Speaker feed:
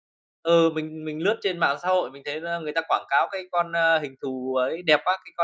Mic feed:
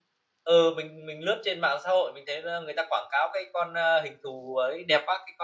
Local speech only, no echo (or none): none